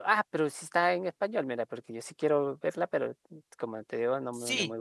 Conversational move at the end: taking over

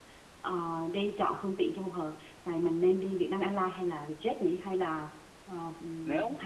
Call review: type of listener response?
taking over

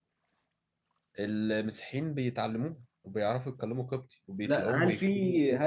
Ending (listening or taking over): taking over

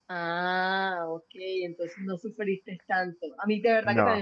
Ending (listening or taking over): listening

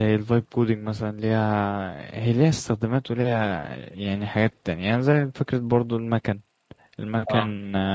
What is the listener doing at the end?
listening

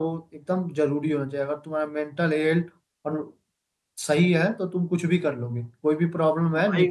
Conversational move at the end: listening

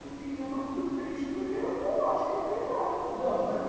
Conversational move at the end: taking over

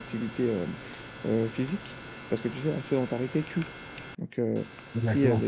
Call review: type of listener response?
listening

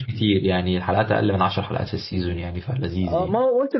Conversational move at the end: taking over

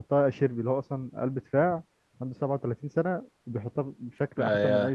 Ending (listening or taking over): taking over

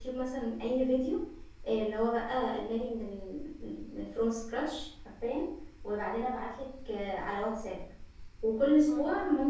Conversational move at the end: listening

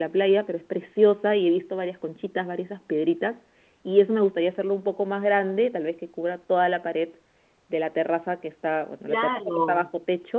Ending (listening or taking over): listening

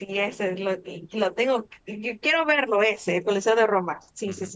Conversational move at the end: taking over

